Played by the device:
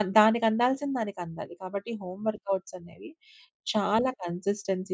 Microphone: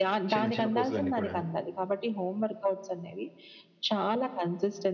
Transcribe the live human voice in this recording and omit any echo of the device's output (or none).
చిన్న చిన్న పూసలన్నీ కూడాను.